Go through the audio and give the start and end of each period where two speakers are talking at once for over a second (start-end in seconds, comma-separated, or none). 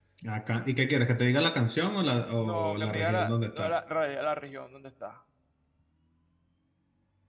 2.5-3.7